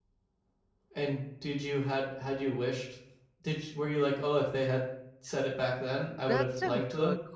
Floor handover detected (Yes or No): Yes